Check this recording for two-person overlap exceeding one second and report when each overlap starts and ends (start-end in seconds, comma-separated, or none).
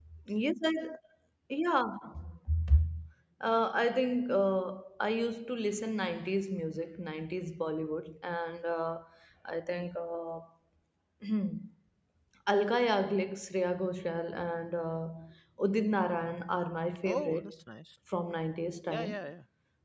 none